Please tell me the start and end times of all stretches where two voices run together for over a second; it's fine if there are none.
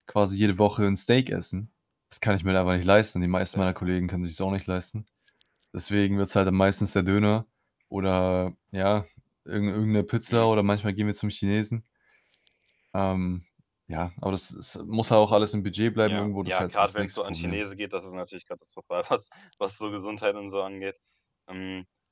16.0-17.6

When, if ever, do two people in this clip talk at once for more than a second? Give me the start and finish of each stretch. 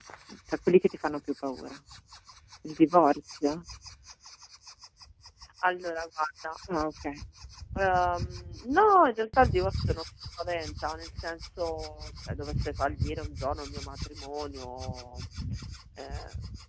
none

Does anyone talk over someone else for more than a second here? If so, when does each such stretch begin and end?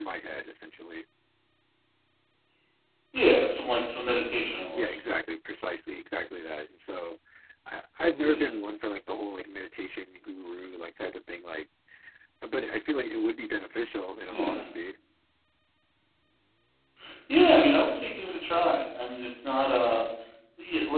none

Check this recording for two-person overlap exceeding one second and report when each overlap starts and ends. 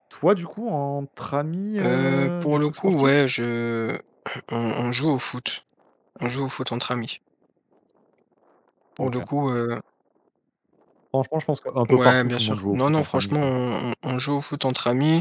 1.8-3.2, 11.9-13.5

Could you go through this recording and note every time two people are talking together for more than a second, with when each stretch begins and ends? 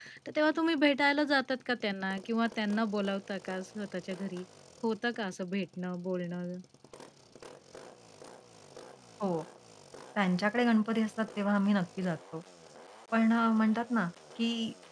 none

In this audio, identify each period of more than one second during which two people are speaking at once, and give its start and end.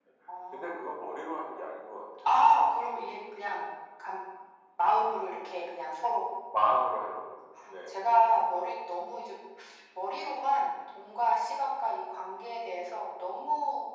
none

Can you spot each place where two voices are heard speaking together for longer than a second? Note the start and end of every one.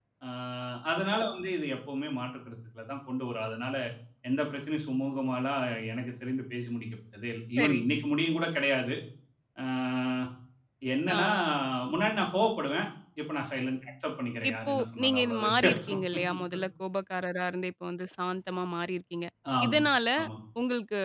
14.5-16.0

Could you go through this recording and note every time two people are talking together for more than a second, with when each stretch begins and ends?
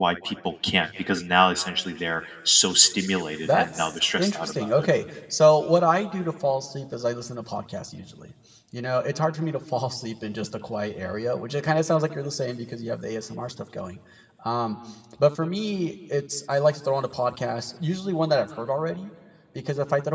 3.5-4.9

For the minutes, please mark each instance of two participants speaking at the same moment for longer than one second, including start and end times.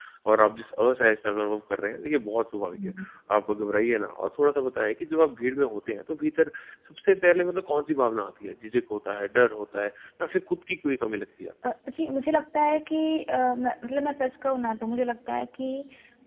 none

